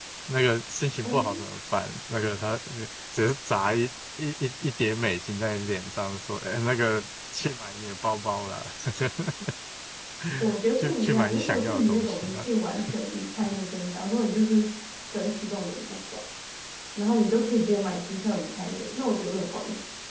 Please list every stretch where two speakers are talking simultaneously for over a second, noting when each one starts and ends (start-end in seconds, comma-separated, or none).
10.8-12.4